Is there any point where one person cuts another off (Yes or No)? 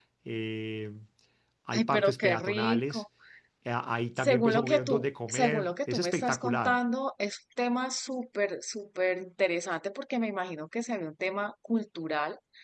Yes